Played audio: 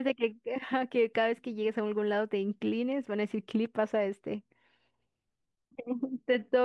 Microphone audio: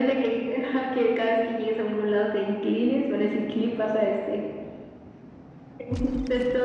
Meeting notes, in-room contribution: none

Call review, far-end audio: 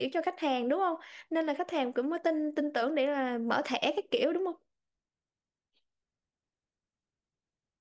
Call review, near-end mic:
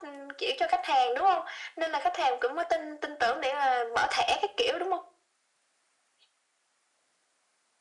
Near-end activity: none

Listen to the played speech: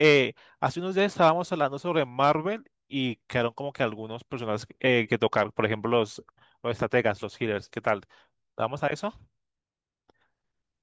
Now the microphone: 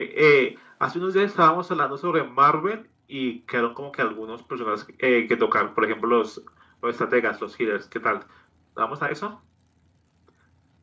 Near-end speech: none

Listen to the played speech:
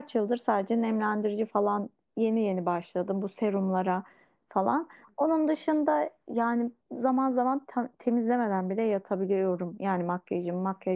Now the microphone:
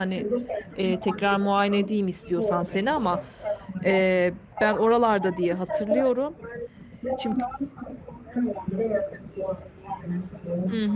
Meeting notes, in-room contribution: present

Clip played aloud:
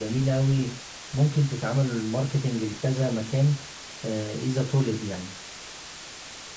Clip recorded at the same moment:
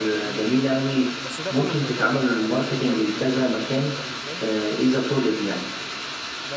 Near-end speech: present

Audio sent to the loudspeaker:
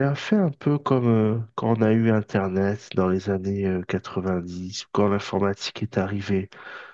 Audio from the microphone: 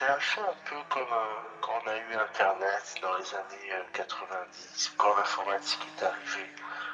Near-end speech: none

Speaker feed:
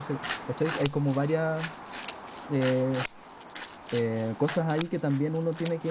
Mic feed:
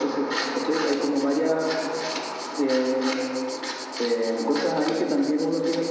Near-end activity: none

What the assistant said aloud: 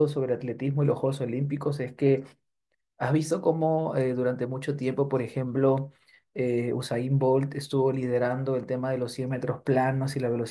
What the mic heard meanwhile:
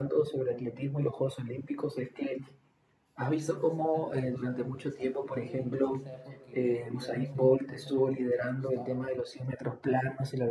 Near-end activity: present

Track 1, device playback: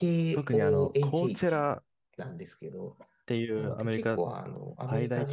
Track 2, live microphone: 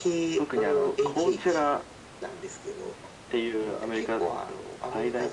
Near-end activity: none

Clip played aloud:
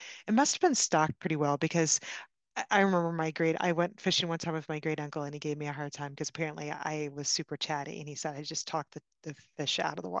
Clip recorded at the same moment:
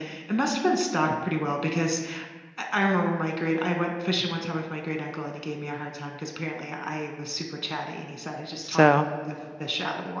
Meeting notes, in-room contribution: present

